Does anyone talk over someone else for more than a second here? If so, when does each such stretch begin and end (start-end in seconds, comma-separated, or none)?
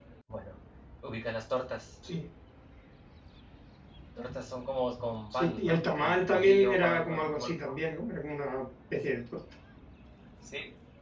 5.3-7.5